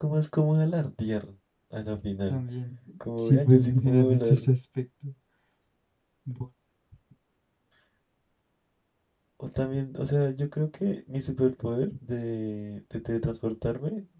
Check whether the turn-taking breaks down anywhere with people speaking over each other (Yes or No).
Yes